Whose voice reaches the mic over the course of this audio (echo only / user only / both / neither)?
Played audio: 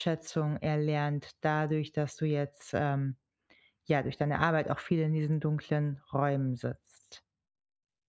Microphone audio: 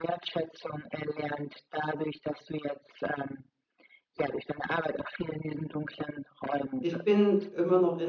both